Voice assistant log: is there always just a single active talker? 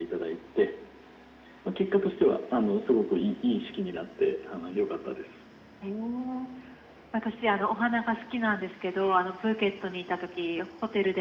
Yes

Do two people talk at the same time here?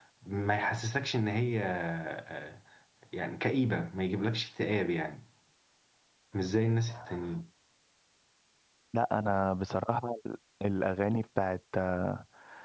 No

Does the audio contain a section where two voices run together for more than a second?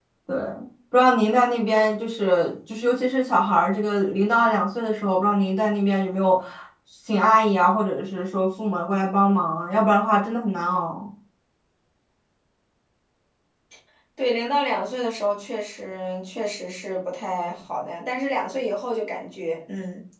No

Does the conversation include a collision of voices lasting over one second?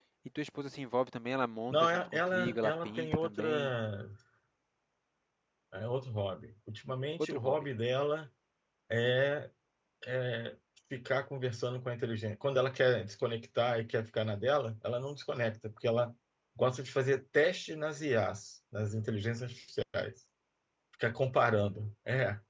Yes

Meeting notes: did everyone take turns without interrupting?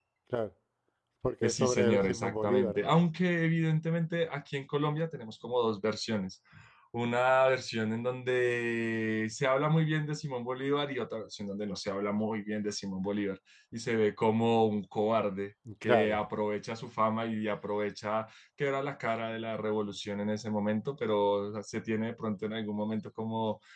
No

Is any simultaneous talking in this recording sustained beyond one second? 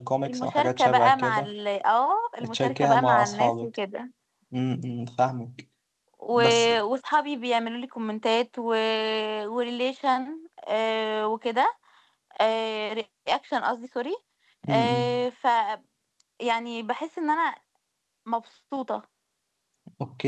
Yes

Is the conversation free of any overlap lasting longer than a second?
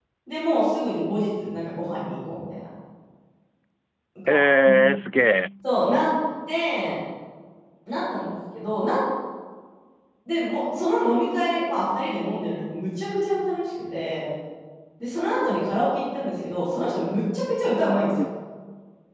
Yes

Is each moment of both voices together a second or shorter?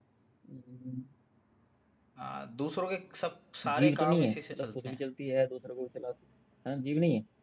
No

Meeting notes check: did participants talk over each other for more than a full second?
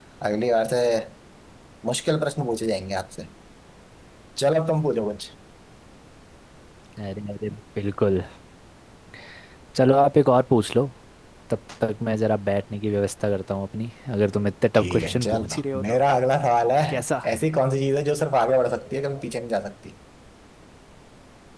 Yes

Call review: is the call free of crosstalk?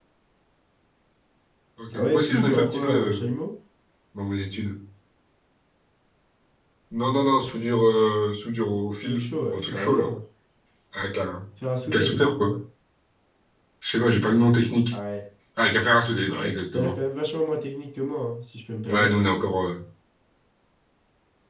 No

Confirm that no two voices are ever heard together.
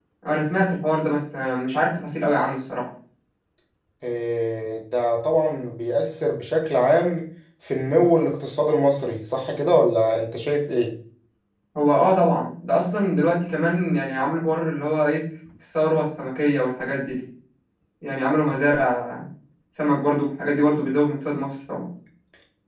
Yes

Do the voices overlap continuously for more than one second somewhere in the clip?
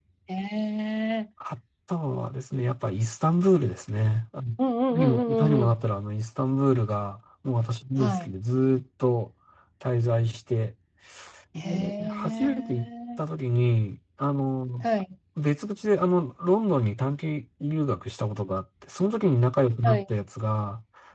Yes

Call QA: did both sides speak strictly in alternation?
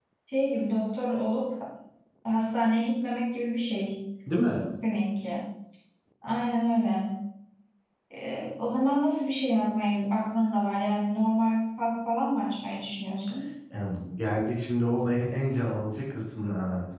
Yes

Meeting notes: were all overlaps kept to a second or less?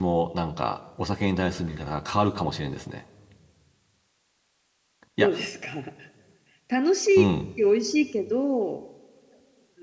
Yes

